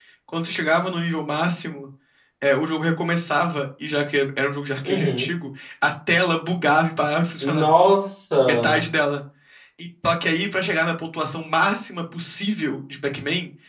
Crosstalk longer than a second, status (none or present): none